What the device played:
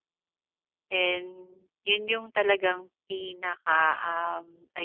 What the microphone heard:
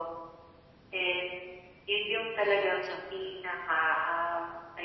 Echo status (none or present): present